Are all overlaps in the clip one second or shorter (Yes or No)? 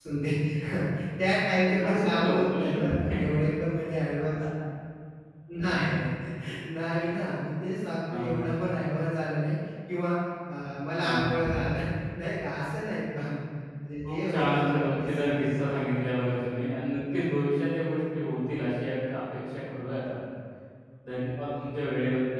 No